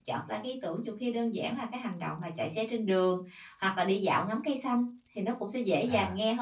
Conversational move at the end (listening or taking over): listening